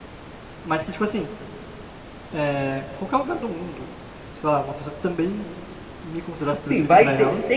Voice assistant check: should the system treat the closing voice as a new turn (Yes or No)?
Yes